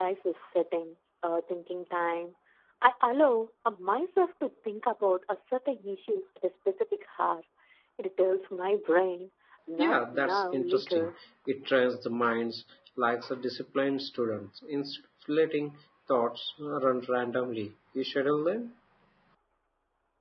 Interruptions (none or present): present